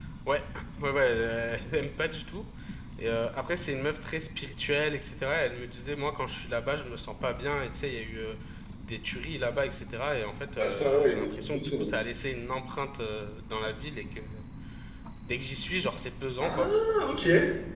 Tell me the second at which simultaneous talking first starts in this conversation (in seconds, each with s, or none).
10.6 s